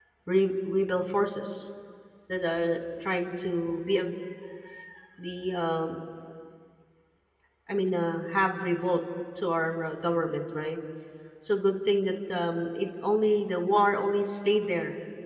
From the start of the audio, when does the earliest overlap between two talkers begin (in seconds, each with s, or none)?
none